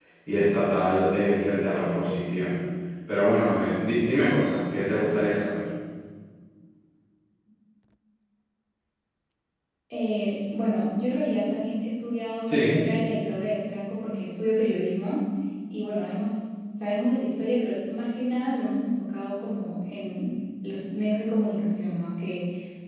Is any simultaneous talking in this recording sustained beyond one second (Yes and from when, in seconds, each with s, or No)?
No